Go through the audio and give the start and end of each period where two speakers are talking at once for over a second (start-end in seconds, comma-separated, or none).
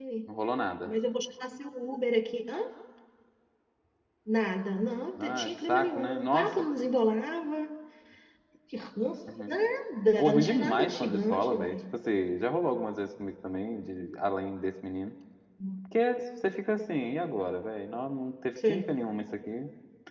5.2-6.6, 10.2-11.8